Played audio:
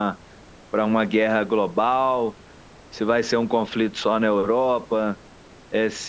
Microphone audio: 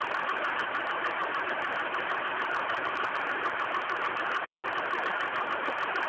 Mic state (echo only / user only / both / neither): neither